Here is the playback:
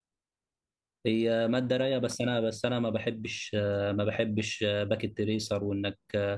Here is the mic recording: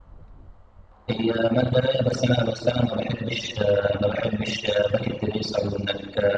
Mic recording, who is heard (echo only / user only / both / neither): echo only